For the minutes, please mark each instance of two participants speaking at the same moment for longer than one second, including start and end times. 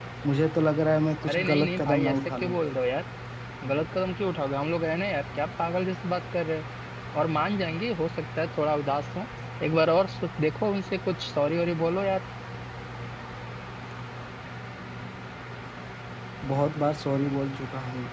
1.3-2.6

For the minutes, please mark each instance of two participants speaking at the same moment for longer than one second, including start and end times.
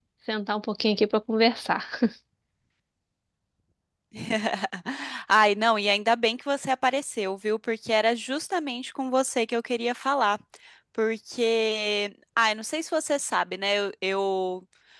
none

